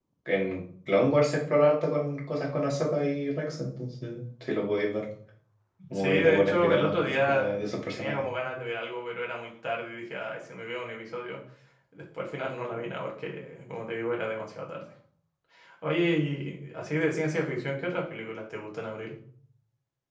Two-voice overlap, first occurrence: 6.0 s

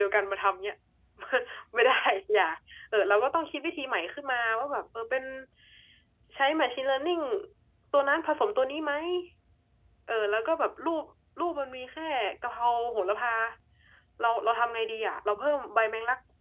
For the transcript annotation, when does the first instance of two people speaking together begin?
none

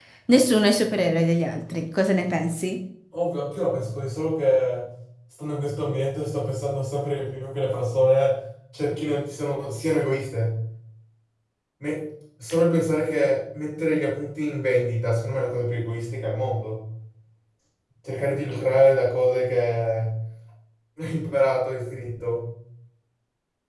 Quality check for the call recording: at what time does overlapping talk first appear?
none

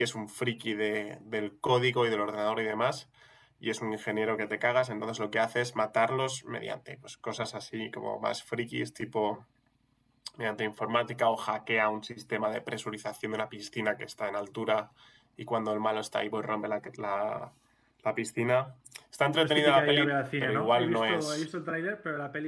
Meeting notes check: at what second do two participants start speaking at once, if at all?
19.4 s

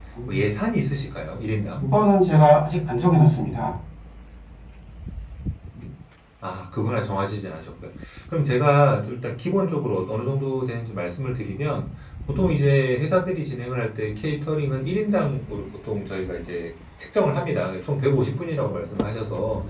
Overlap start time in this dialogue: none

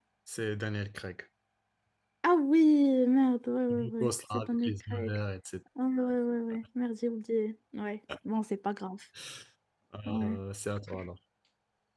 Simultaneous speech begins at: 3.7 s

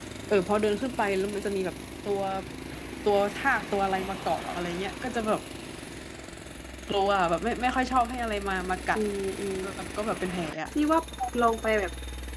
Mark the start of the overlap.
none

